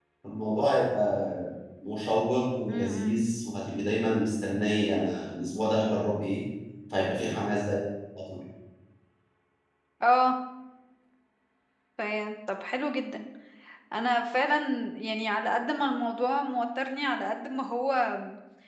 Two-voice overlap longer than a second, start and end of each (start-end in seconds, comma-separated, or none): none